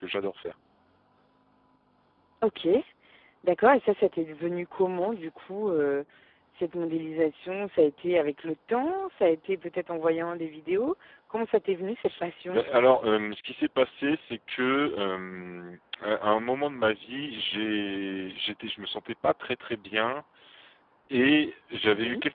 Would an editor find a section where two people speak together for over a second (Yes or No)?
No